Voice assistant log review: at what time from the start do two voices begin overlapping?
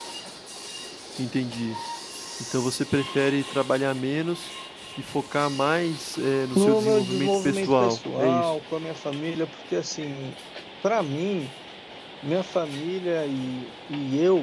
7 s

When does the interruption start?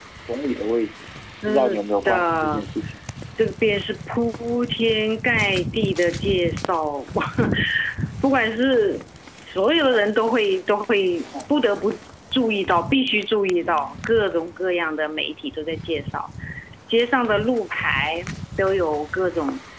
1 s

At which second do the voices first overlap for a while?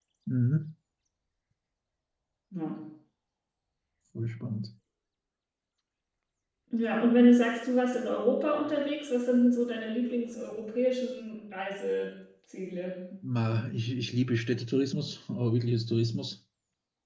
none

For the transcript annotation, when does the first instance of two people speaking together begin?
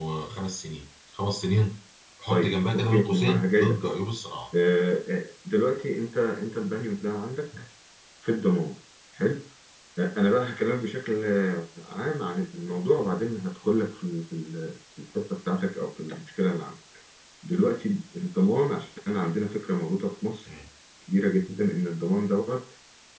2 s

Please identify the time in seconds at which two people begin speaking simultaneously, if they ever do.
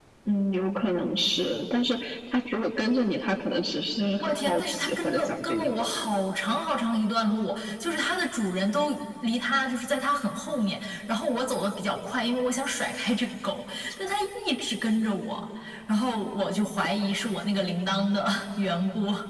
4 s

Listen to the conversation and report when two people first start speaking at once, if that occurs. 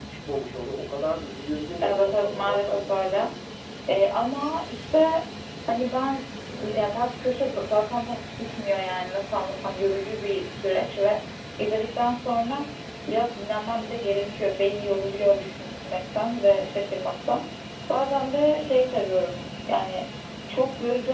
2 s

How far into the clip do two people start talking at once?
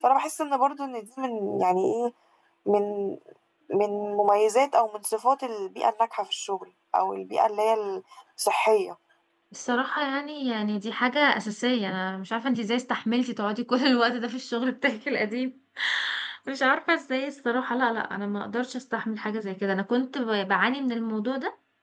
none

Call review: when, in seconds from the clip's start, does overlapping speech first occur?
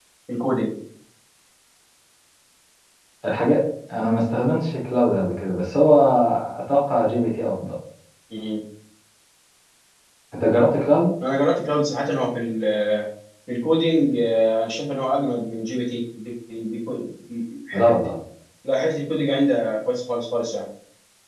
none

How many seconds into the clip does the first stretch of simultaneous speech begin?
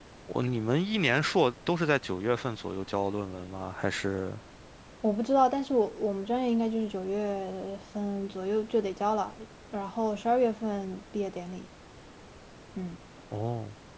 none

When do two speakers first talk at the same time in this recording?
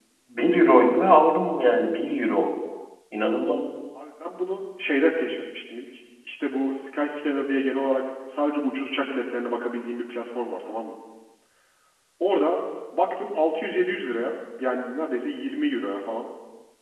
none

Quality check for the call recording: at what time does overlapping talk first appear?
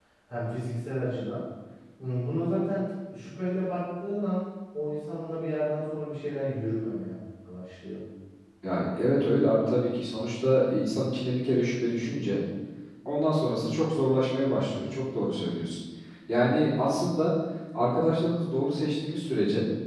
none

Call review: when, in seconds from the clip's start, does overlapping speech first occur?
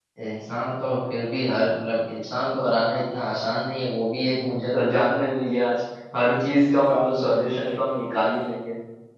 7 s

